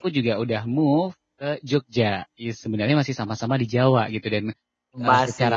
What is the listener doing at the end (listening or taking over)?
listening